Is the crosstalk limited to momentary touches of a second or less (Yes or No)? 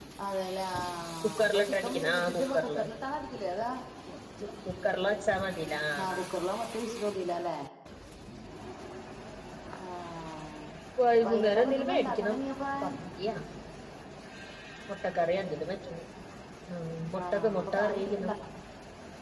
No